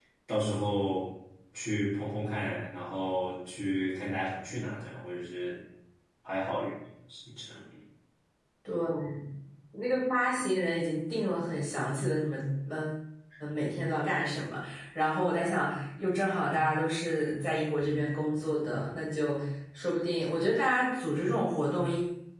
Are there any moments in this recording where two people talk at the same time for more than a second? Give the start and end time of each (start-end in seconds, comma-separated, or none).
none